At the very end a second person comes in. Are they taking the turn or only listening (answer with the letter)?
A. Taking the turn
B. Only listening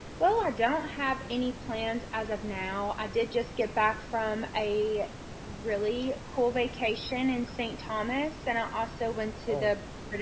B